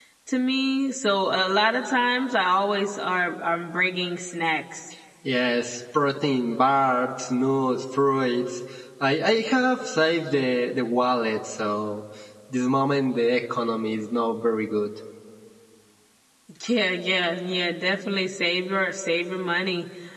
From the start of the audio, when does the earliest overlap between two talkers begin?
none

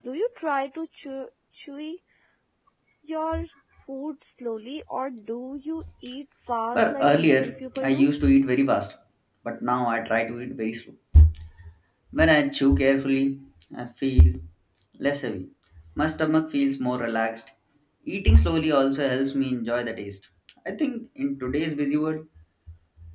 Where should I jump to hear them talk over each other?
6.7 s

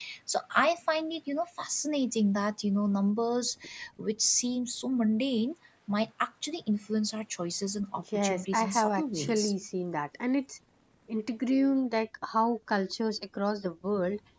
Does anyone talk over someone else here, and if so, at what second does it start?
8.1 s

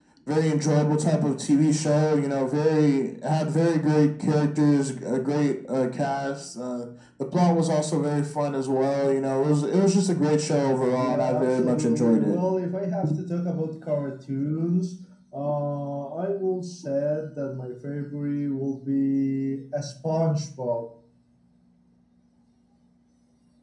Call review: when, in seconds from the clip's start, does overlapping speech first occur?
11.0 s

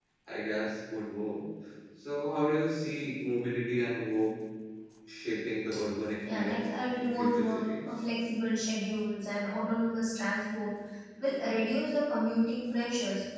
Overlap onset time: 6.2 s

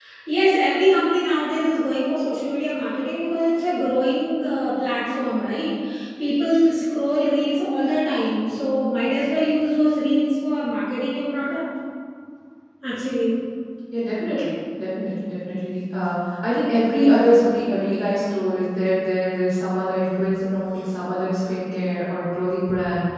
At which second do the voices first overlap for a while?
none

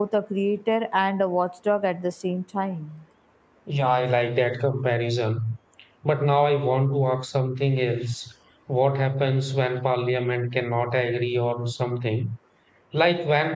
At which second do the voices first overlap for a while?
none

